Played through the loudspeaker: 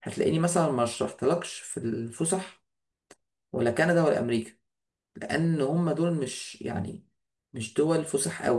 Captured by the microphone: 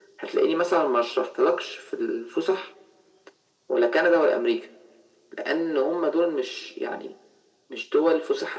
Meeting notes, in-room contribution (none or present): none